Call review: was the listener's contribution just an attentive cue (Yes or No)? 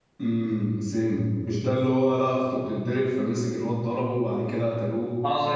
No